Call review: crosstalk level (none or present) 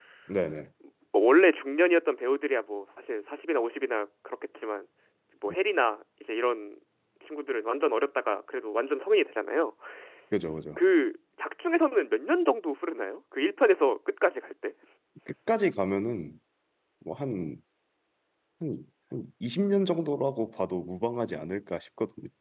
none